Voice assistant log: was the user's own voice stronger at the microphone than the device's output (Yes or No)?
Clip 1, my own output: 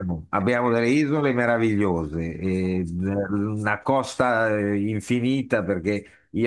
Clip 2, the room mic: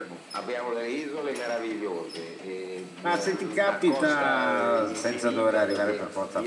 Yes